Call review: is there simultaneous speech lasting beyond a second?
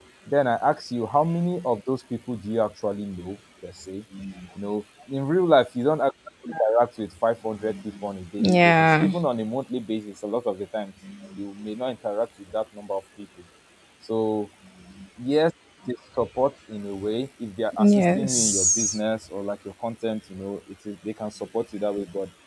Yes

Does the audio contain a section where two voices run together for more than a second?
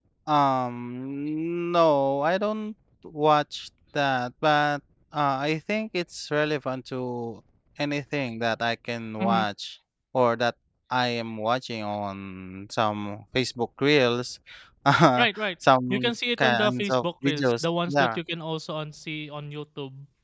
Yes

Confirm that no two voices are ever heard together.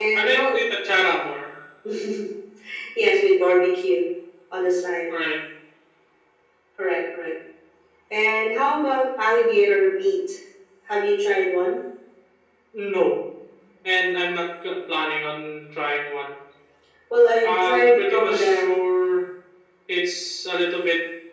No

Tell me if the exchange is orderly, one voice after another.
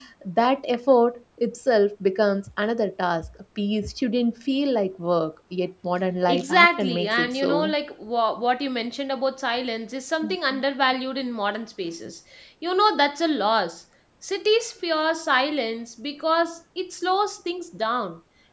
No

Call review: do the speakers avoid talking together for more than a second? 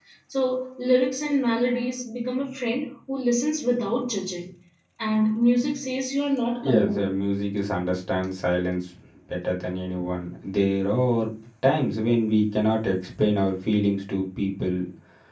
Yes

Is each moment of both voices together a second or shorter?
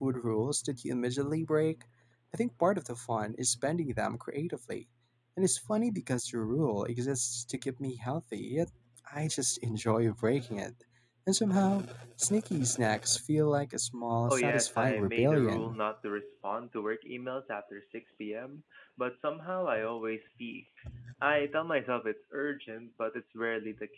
No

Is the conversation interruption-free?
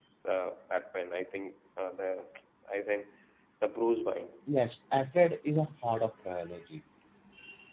Yes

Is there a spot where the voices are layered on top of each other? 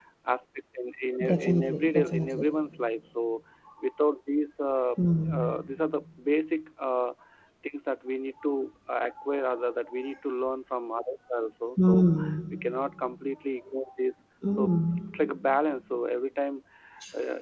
Yes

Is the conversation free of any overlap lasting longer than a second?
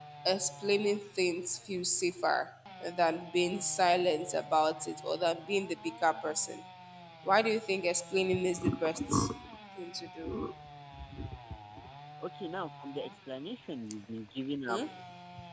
Yes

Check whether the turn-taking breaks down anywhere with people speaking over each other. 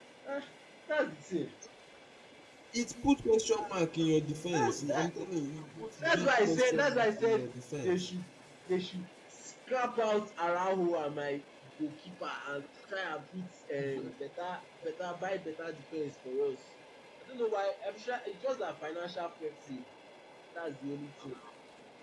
Yes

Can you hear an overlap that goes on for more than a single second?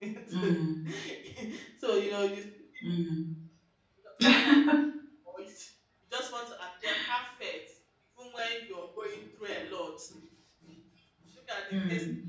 No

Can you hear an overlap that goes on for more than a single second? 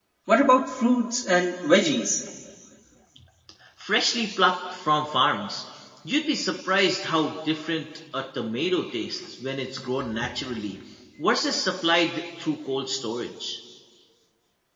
No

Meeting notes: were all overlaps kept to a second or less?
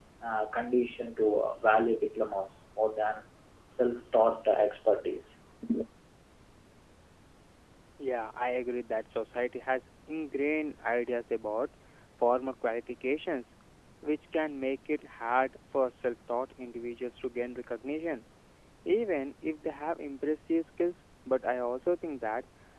Yes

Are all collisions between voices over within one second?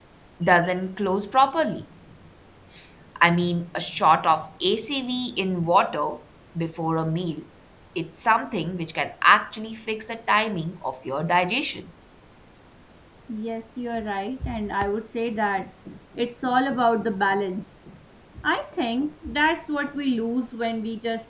Yes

